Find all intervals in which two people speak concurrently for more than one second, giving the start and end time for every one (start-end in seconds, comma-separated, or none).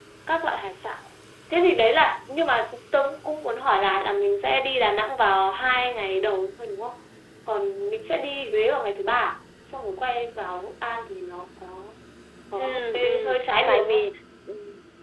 12.6-14.1